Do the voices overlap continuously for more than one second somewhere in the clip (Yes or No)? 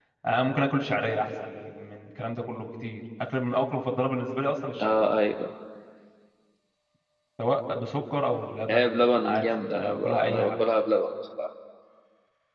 Yes